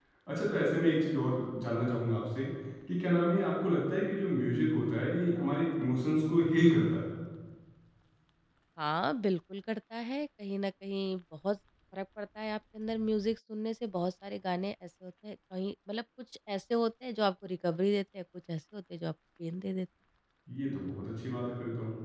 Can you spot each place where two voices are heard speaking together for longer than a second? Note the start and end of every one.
none

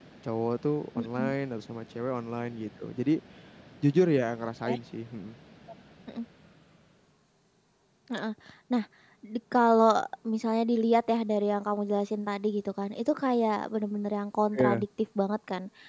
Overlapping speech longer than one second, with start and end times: none

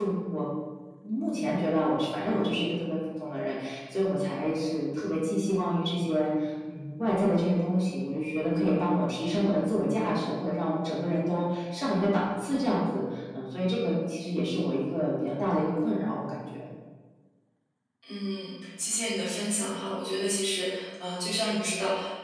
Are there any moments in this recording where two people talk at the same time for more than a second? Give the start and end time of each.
none

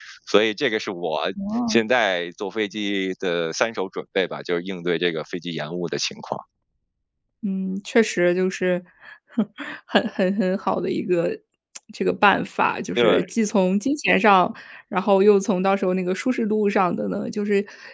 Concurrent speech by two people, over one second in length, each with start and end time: none

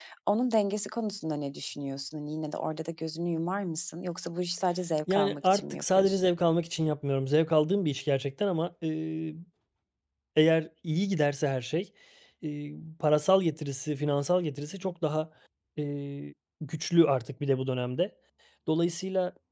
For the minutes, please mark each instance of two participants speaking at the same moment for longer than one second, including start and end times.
5.1-6.3

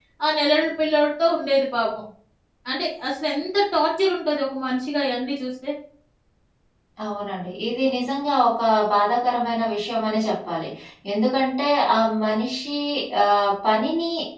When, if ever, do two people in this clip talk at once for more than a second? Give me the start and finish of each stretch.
none

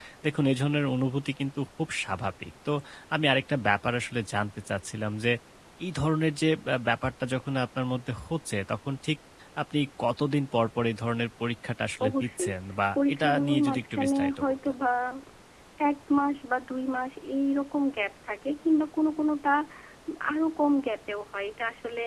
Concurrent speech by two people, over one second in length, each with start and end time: 12.9-14.8

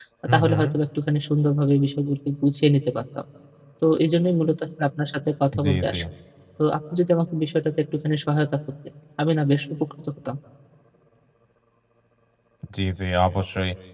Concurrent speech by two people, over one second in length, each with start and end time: none

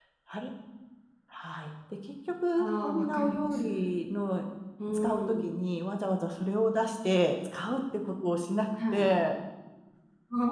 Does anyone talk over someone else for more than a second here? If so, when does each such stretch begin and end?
2.6-3.9

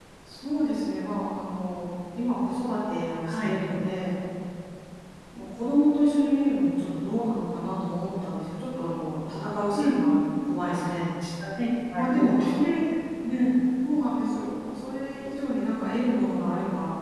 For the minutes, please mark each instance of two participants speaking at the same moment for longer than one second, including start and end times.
none

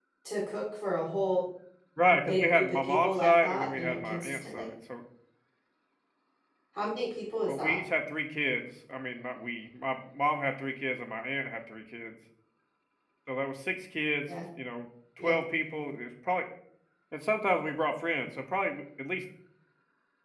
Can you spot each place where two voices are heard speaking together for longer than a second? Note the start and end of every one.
2.2-4.7

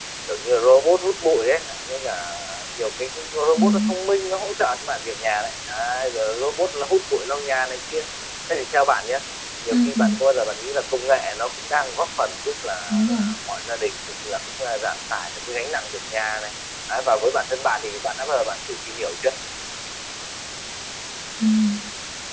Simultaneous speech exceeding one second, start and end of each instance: none

